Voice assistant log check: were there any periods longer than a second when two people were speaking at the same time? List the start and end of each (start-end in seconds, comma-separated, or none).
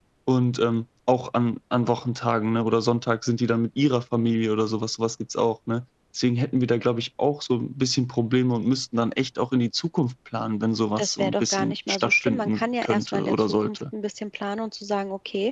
11.0-13.8